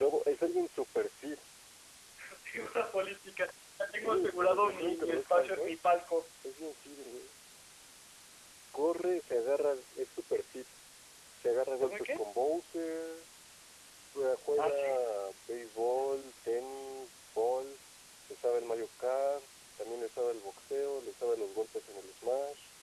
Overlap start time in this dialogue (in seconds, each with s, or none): 4.0 s